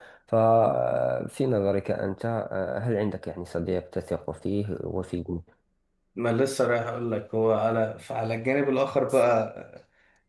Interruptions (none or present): none